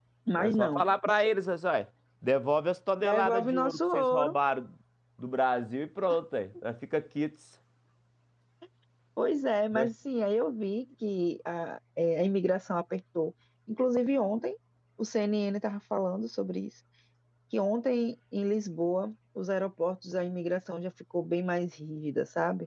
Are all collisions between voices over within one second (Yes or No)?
No